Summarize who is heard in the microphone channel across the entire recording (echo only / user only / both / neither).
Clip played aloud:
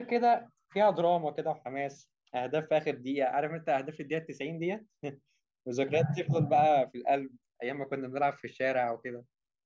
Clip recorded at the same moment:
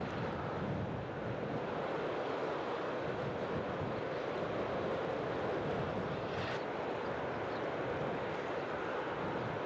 neither